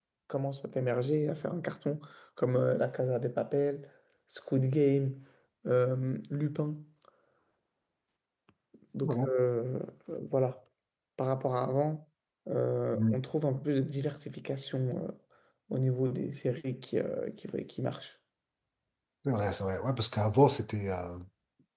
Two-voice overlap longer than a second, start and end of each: none

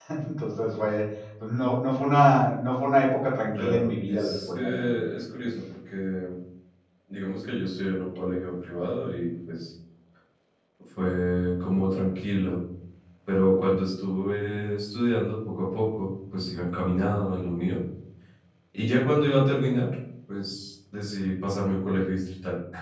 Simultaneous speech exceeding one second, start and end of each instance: 3.5-5.1

